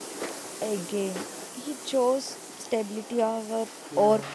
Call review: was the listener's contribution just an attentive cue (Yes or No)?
No